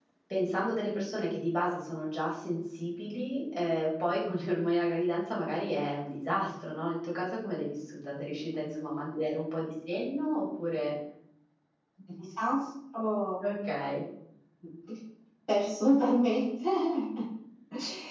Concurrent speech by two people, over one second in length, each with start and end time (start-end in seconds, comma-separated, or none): none